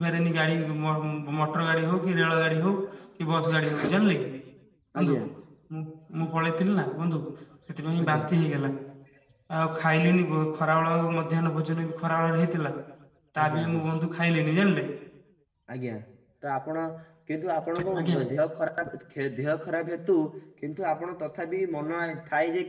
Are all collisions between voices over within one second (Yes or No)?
Yes